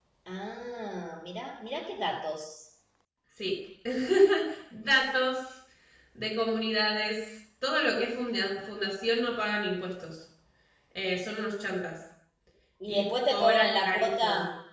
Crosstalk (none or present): present